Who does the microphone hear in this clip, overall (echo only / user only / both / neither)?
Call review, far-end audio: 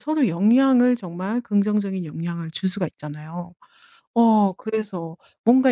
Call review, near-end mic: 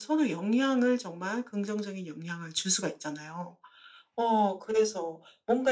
echo only